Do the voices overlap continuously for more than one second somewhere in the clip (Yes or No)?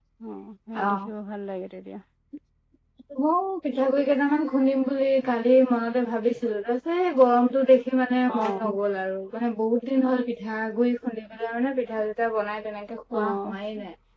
No